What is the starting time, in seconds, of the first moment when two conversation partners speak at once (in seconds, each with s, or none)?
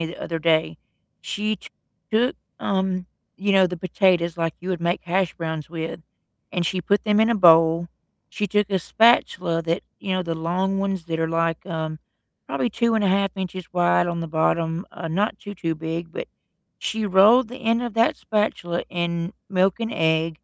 none